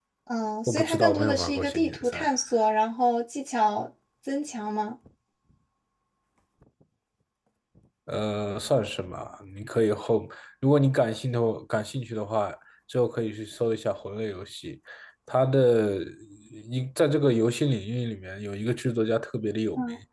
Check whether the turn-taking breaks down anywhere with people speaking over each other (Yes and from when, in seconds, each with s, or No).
Yes, from 0.7 s